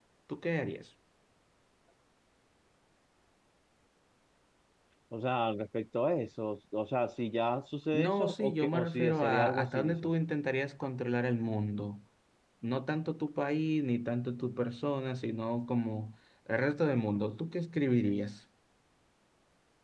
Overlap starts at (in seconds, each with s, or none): 7.9 s